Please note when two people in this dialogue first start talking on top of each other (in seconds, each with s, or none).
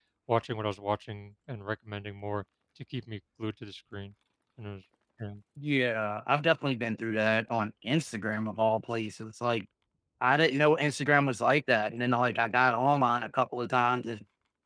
none